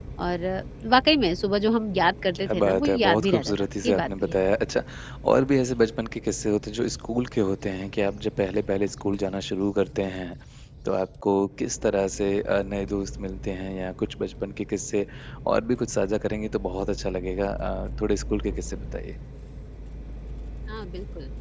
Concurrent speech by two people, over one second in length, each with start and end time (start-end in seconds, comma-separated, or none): 2.4-4.4